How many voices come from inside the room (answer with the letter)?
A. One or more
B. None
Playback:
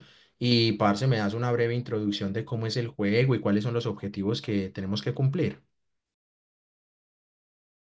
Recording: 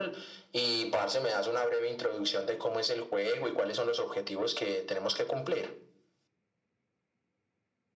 B